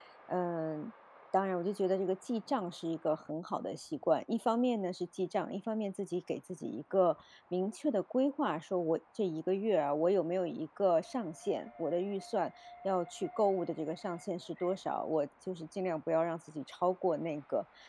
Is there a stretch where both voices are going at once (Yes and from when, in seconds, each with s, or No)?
No